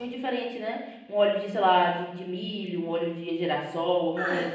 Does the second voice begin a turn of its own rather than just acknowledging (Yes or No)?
Yes